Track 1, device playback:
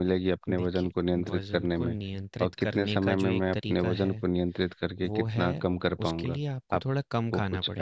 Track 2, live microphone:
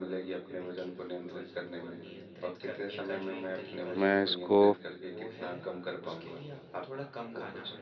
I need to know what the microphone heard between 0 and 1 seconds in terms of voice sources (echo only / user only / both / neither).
echo only